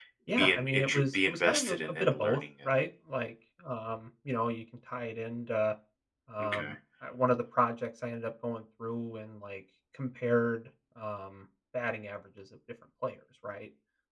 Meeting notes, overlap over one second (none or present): present